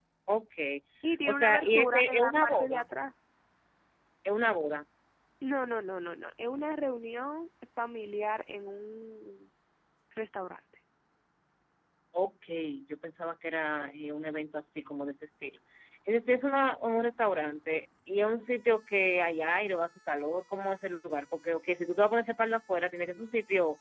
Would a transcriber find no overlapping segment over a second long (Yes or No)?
No